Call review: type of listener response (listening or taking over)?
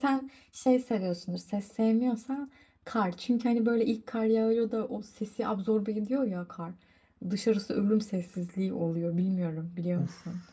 taking over